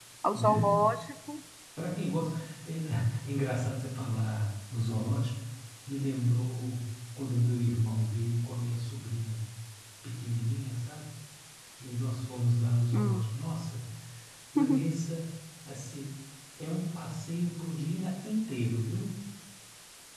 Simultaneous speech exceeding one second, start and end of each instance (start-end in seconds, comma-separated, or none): none